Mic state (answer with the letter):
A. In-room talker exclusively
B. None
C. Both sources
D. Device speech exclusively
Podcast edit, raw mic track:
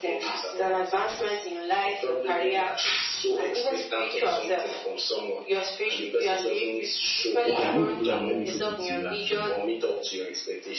C